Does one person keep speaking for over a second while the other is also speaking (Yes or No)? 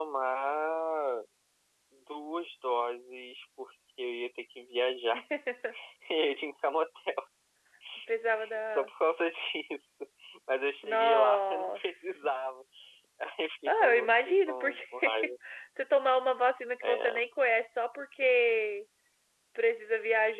Yes